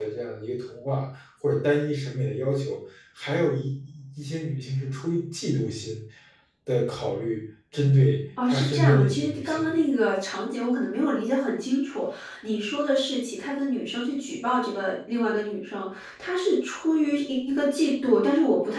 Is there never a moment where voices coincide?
No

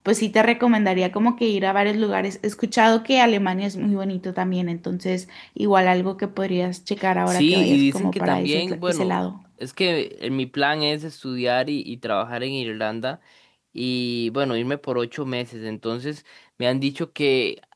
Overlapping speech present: Yes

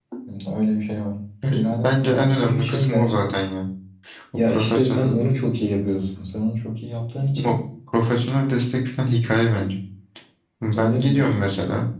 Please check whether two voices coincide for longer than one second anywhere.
Yes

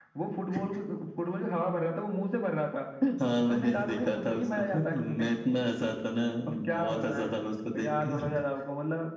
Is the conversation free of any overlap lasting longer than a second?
No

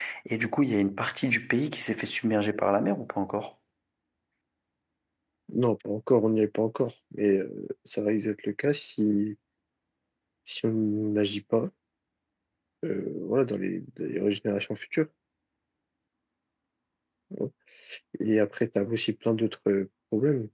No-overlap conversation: Yes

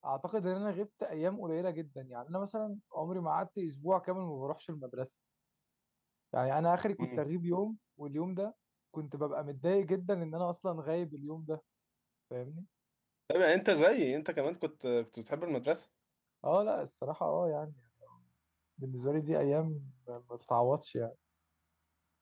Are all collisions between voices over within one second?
Yes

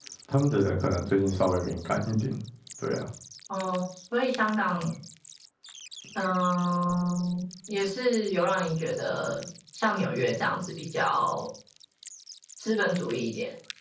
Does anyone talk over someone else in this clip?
No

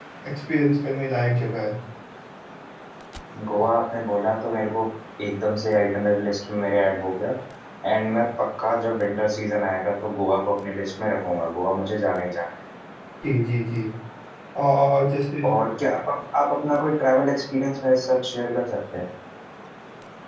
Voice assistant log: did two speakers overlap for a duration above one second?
No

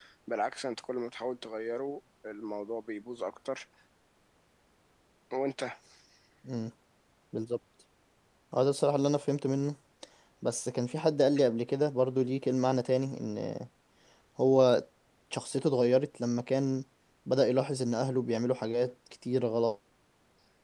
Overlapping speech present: No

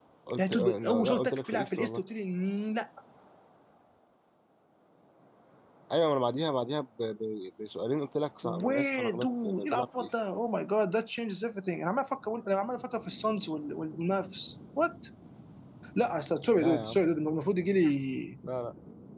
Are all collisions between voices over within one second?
No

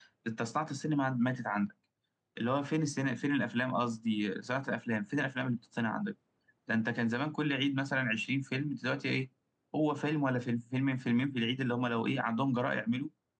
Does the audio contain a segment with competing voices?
No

